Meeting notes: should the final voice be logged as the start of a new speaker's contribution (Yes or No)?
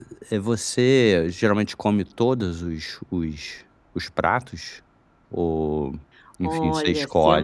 Yes